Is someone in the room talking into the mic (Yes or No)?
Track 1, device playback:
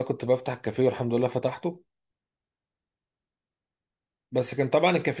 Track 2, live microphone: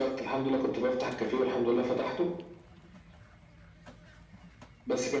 No